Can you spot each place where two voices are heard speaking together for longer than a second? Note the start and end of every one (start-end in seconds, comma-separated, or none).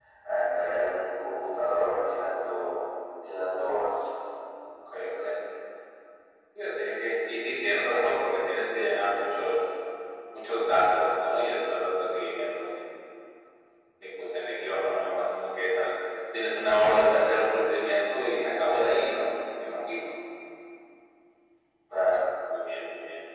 none